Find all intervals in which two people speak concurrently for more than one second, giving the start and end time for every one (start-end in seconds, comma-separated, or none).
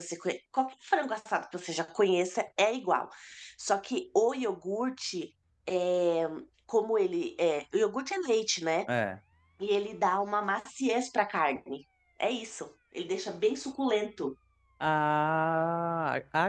none